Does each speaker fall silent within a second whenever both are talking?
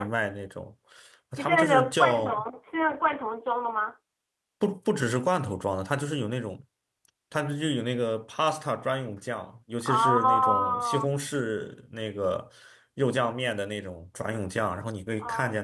No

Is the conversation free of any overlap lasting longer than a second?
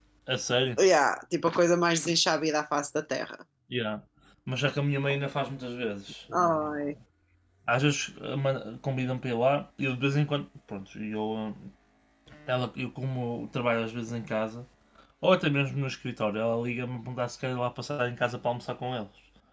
Yes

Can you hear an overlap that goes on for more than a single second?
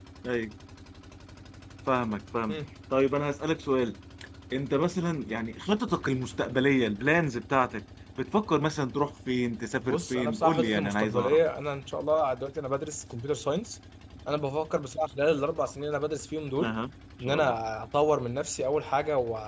Yes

